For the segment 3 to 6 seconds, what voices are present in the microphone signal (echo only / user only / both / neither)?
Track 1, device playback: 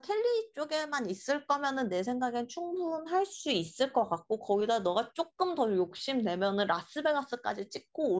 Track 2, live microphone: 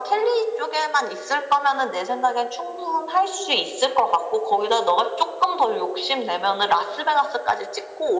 echo only